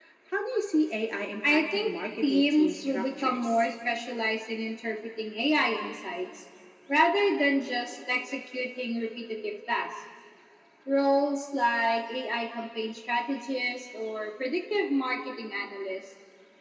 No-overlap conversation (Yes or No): No